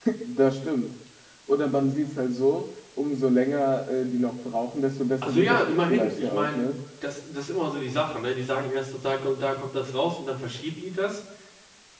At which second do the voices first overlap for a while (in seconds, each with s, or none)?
5.2 s